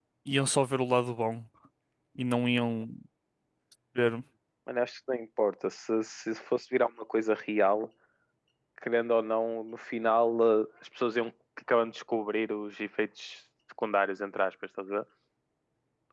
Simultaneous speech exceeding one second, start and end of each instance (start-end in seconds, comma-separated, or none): none